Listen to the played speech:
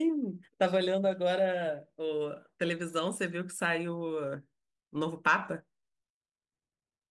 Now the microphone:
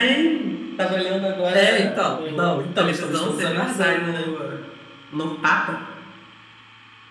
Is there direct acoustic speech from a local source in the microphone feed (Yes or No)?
Yes